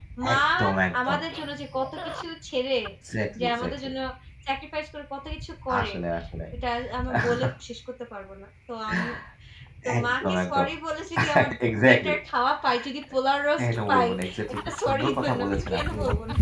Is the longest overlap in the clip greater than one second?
Yes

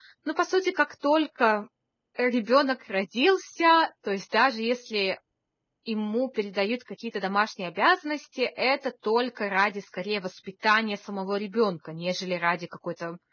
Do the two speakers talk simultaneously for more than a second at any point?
No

